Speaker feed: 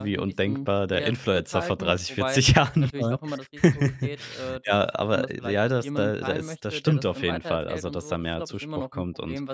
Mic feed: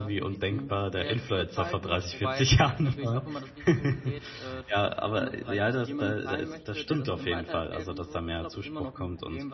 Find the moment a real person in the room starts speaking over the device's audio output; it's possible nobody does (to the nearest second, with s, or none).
none